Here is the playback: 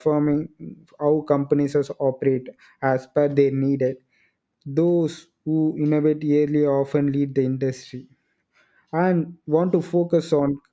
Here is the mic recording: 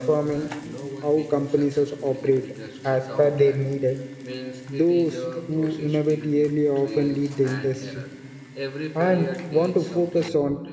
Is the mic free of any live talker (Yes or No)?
No